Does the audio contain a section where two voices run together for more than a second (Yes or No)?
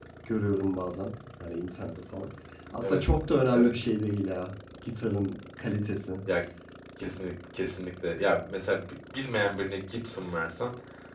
No